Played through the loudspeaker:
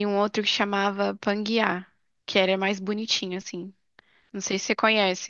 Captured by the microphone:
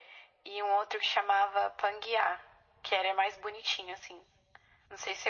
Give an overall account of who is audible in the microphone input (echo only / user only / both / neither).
echo only